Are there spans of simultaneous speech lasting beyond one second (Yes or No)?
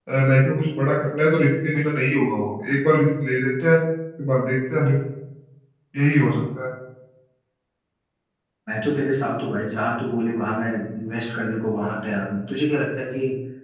No